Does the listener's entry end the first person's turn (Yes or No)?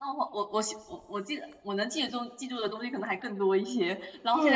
No